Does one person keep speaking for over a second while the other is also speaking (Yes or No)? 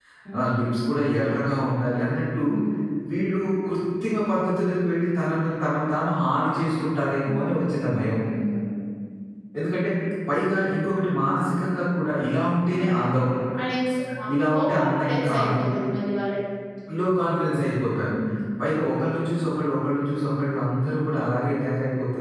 Yes